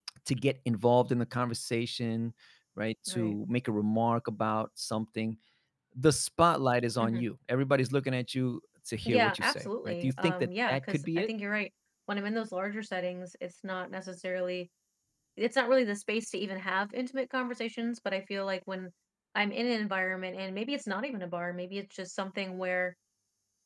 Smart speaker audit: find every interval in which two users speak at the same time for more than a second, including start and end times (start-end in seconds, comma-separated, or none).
9.1-11.3